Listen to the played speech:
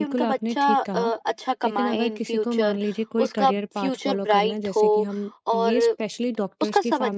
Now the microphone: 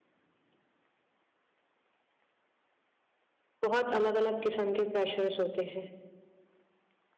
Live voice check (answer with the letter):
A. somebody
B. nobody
A